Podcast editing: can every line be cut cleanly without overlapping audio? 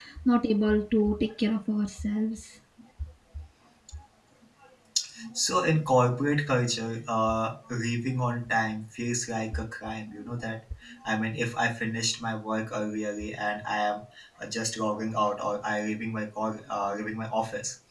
Yes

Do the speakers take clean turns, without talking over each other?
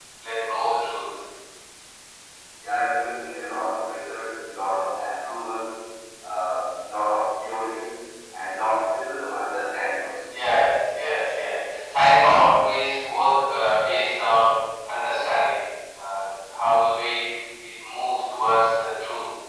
Yes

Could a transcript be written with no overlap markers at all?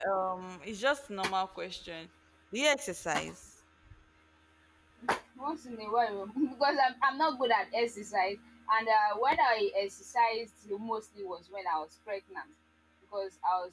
Yes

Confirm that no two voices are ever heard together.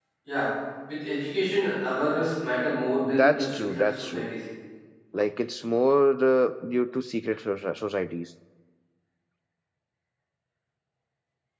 No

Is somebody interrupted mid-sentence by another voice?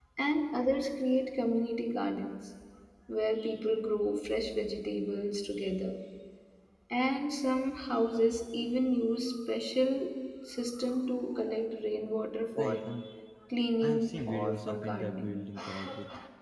Yes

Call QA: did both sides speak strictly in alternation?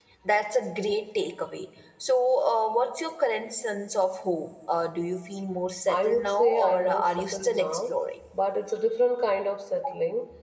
No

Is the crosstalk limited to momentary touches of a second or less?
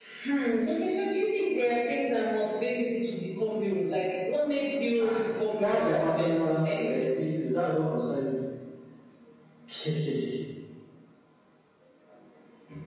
No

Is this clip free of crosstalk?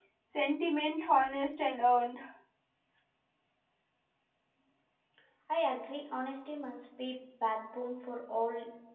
Yes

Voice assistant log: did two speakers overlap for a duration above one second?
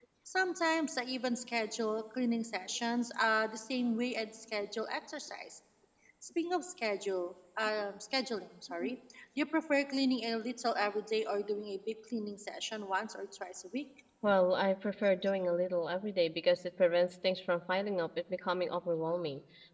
No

